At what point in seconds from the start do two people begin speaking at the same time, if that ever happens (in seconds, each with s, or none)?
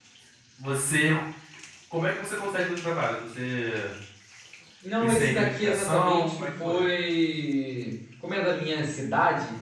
5.0 s